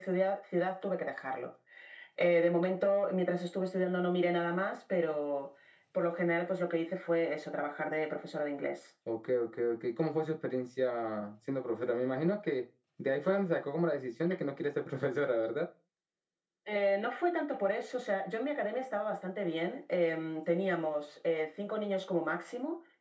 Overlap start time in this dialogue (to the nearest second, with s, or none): none